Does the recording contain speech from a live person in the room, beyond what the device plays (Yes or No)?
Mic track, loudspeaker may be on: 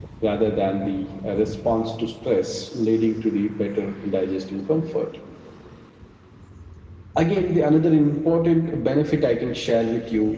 No